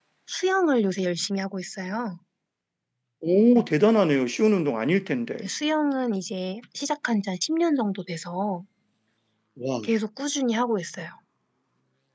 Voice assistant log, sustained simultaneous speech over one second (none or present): none